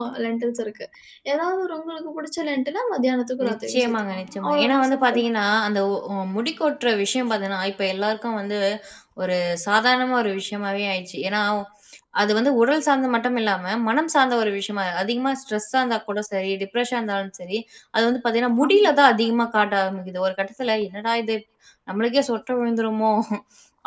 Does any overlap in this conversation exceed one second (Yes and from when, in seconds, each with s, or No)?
Yes, from 3.5 s